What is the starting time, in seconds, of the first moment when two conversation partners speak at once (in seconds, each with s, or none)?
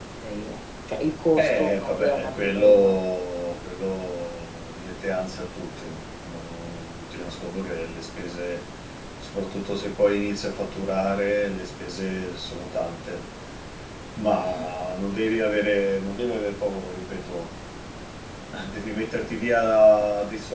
1.4 s